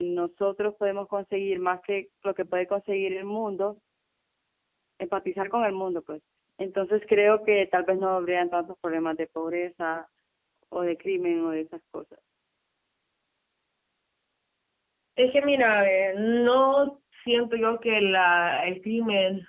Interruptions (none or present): none